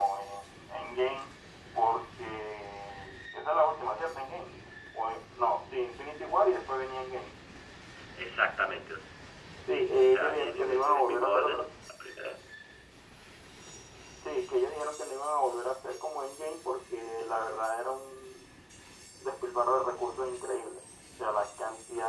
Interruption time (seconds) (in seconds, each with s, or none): 10.1 s